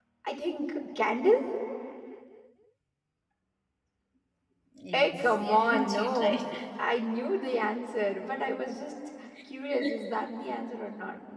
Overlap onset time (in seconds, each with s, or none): 4.9 s